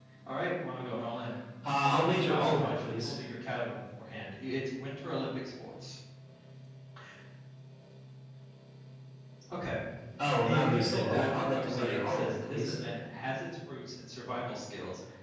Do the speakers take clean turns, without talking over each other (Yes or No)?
No